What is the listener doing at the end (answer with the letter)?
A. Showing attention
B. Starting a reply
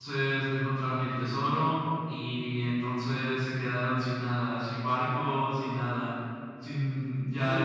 B